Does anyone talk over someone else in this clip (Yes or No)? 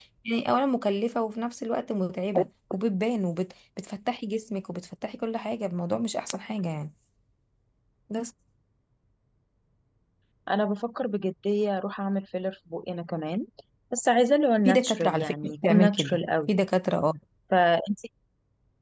Yes